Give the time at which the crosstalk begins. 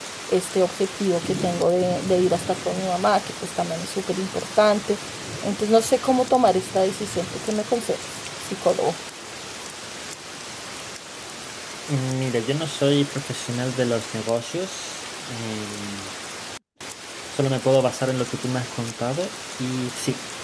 none

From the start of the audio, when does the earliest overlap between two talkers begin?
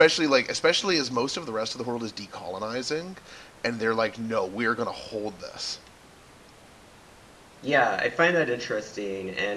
none

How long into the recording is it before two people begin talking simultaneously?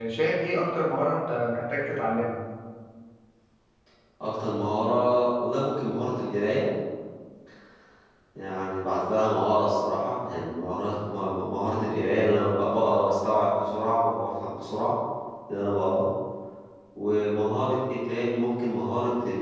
none

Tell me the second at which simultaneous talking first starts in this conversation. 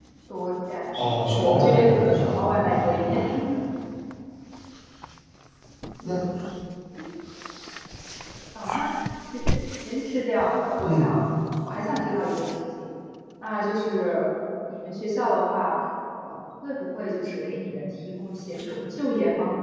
1.0 s

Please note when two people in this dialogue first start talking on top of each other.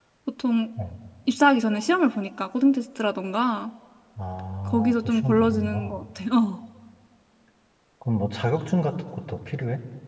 4.7 s

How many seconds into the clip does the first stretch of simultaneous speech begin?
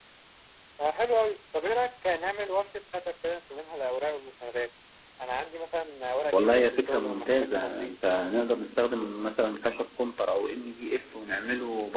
6.3 s

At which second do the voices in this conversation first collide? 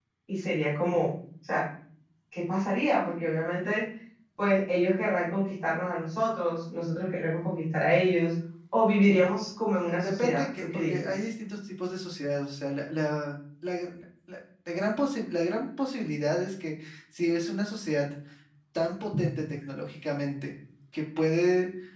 9.8 s

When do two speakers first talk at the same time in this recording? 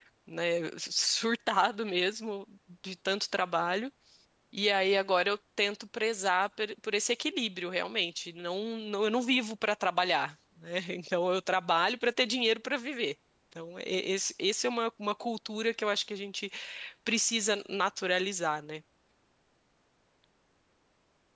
none

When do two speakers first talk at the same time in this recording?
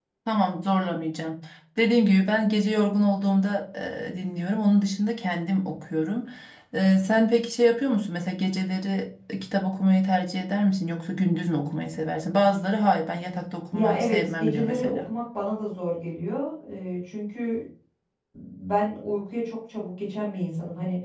13.7 s

